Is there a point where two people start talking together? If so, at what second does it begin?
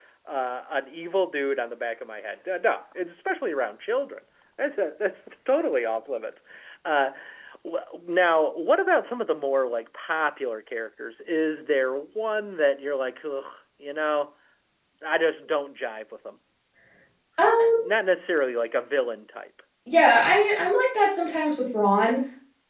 none

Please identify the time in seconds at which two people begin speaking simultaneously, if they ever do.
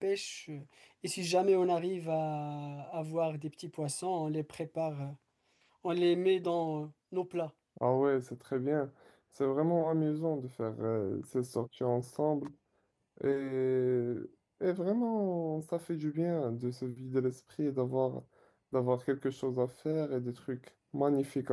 none

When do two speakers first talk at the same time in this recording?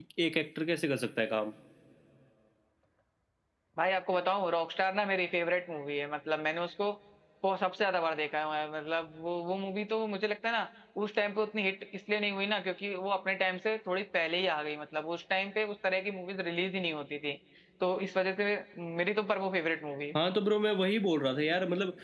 none

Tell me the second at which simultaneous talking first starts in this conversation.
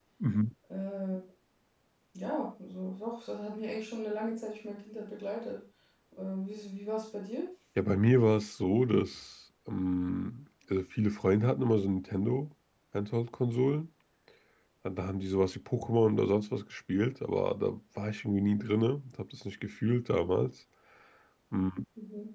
none

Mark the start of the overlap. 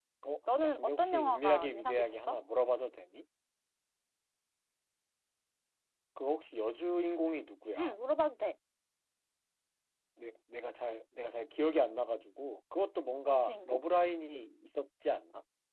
0.6 s

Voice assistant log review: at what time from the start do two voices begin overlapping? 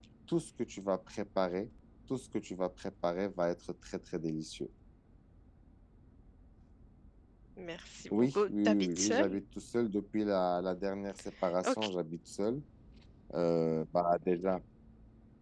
8.1 s

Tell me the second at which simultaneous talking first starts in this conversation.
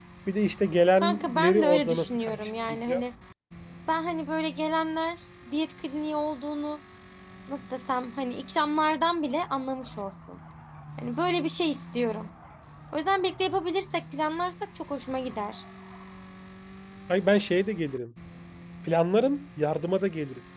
1.0 s

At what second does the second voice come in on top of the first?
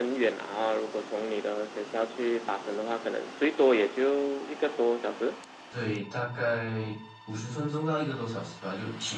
none

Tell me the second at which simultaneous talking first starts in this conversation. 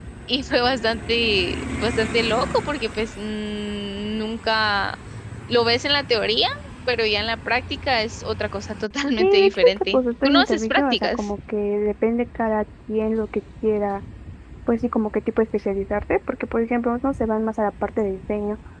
9.2 s

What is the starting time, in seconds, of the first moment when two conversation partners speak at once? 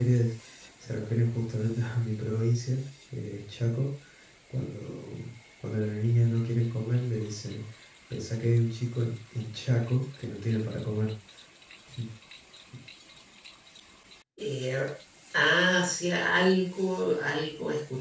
none

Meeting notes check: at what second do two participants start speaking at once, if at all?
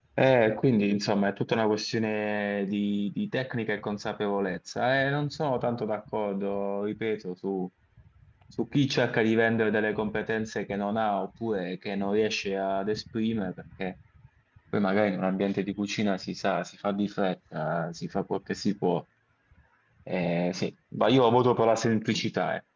none

